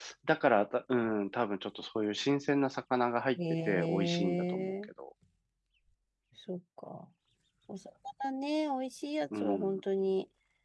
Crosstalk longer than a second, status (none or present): present